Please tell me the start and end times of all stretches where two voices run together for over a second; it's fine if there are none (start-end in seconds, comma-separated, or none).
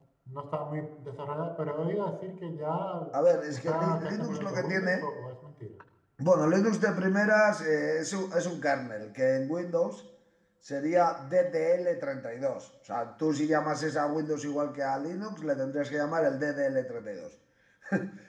3.5-5.1